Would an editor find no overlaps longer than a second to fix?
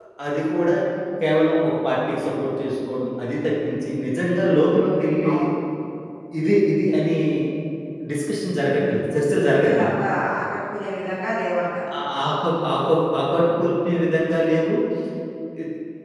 Yes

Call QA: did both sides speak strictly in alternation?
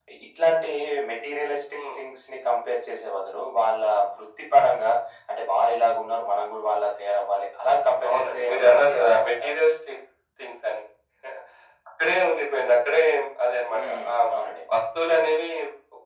No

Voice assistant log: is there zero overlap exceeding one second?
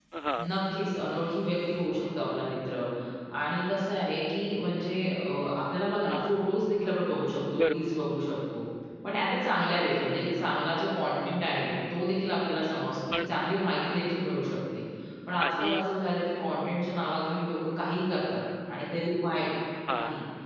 Yes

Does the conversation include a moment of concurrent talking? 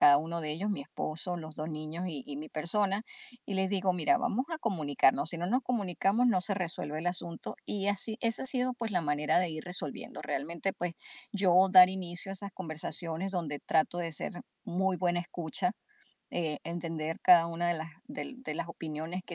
No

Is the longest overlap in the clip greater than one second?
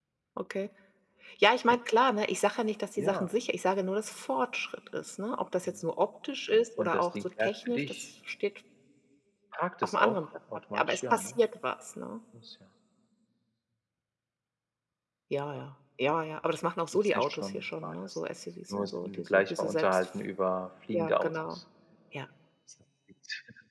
Yes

